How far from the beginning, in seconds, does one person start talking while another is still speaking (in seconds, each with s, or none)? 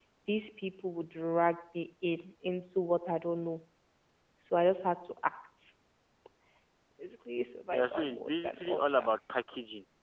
7.7 s